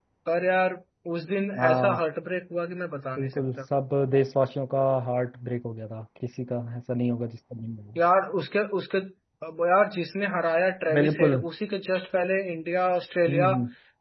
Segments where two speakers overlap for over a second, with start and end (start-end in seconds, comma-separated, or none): none